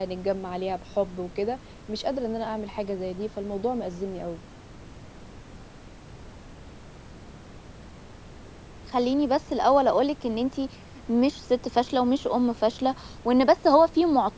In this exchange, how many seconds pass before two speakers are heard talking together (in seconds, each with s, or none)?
none